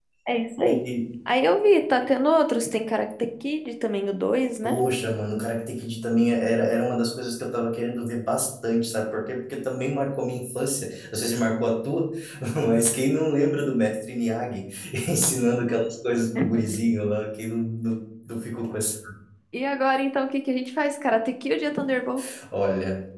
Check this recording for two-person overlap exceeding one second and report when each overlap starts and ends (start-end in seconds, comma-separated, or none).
none